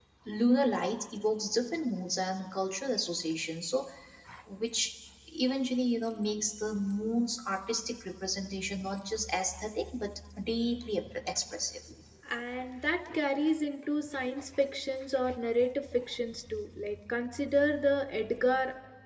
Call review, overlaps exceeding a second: none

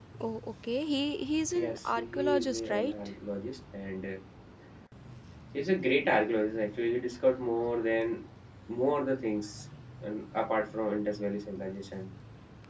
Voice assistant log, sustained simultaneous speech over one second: present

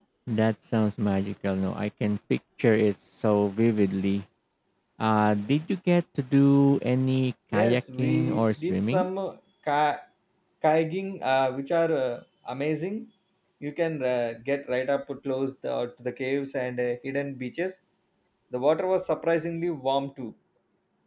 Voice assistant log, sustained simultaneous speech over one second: present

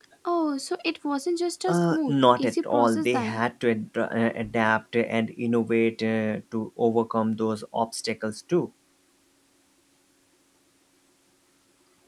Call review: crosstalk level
present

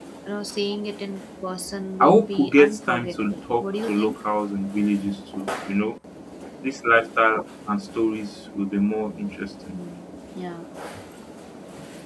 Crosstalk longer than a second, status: present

